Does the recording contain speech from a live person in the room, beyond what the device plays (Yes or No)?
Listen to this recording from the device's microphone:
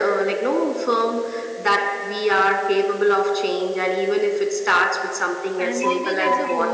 Yes